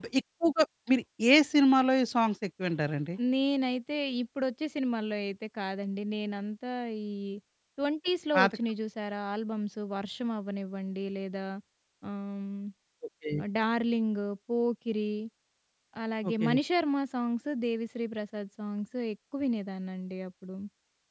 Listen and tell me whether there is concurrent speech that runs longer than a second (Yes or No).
No